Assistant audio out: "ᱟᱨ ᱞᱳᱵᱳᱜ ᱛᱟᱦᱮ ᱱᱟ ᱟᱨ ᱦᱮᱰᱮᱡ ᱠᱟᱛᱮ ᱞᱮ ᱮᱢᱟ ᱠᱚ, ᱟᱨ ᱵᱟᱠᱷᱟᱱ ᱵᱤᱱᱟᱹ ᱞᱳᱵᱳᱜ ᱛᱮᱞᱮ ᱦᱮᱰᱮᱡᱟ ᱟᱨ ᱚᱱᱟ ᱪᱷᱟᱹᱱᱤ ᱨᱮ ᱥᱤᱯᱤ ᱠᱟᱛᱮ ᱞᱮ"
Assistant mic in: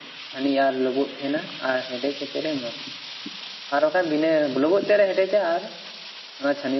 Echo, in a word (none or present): present